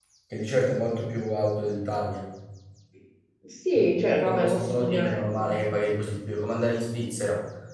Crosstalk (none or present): present